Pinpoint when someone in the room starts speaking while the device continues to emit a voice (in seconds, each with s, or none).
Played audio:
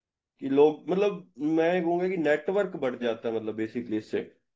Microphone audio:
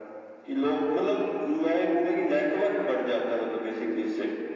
none